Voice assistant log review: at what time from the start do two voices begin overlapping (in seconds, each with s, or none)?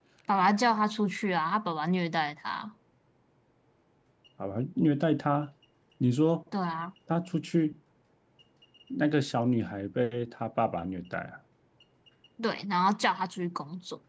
none